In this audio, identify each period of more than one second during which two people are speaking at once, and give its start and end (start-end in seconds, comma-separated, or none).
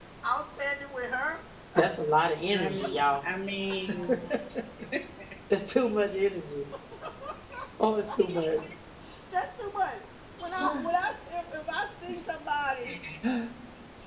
none